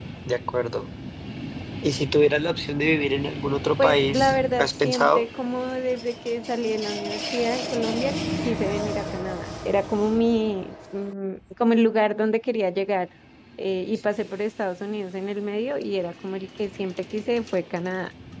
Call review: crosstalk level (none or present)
present